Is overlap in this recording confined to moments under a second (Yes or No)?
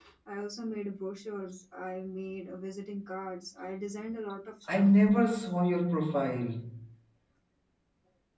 Yes